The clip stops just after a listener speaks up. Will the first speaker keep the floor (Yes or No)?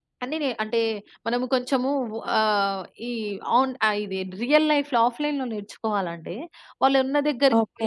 Yes